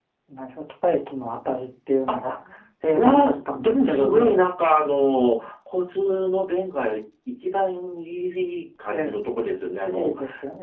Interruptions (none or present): present